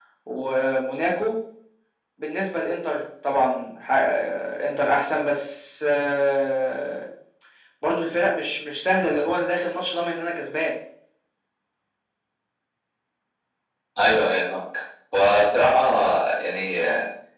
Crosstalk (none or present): none